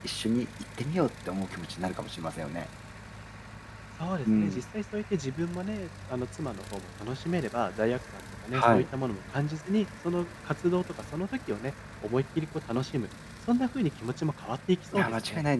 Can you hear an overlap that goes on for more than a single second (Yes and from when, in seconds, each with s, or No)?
No